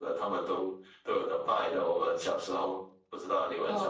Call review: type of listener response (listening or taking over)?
taking over